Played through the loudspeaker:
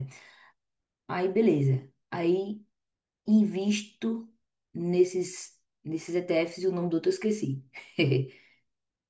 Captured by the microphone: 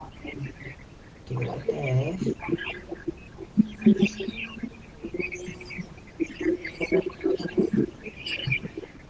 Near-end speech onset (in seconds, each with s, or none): 1.2 s